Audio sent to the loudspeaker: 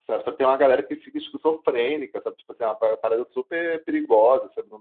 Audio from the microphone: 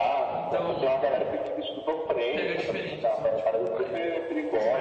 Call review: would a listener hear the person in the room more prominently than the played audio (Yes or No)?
No